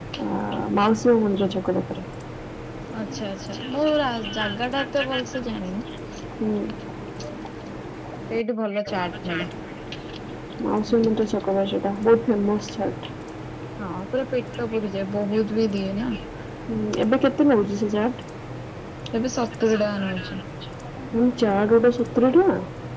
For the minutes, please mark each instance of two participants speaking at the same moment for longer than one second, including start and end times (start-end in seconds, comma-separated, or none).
none